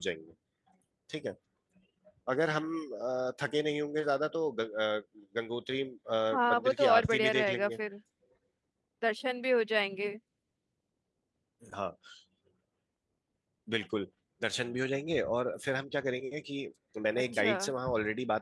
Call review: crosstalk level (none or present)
present